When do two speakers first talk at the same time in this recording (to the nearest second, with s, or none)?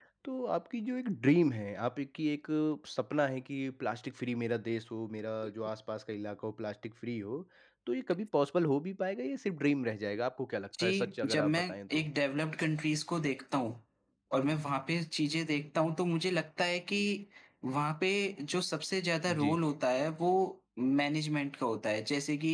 11 s